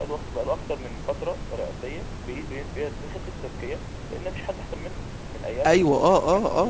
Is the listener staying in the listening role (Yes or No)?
No